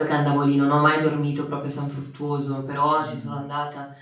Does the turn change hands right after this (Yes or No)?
No